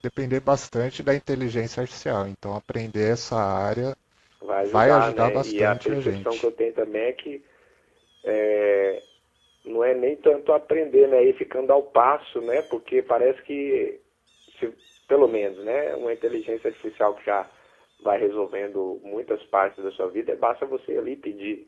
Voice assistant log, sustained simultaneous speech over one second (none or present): present